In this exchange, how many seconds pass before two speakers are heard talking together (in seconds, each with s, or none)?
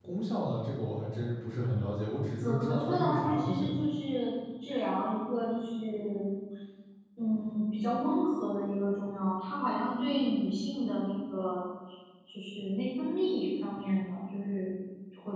2.4 s